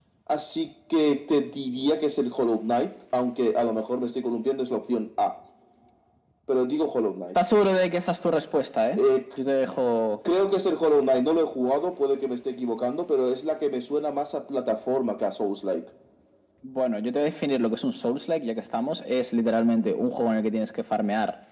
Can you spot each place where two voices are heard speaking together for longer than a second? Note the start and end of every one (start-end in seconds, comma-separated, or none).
none